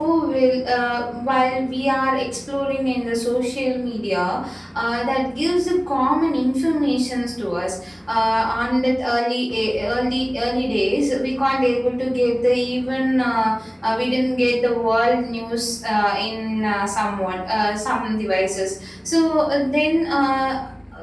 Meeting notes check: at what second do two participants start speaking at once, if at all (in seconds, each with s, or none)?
none